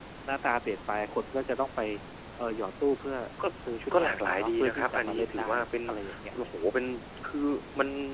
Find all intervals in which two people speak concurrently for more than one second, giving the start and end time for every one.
3.9-5.5

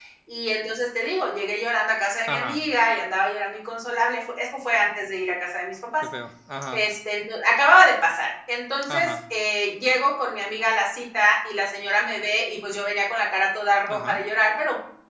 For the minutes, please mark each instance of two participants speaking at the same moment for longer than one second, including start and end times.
none

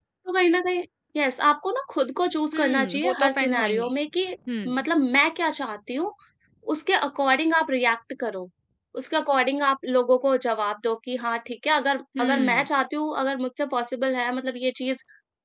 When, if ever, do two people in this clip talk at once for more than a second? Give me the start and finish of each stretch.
2.5-3.9

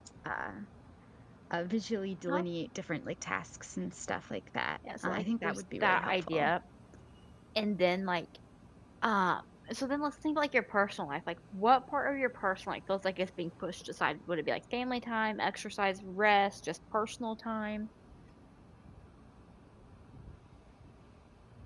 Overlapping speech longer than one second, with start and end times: 5.0-6.5

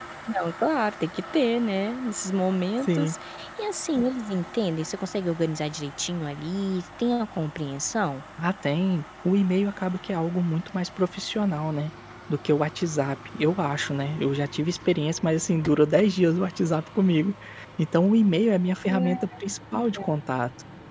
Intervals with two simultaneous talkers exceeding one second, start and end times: none

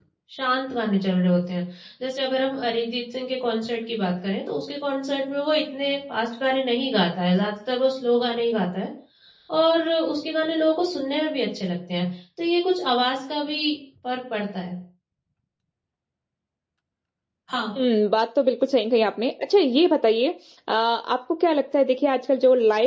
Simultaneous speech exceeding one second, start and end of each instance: none

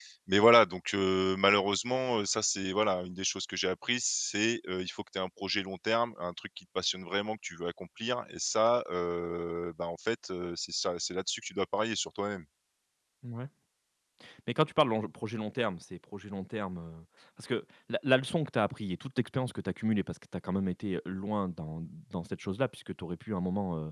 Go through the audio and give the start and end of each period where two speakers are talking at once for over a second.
none

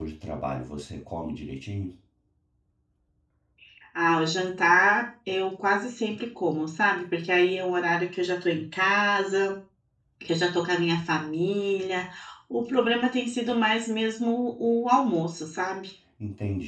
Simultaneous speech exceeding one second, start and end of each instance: none

